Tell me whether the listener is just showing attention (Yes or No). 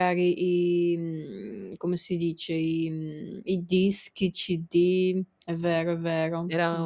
No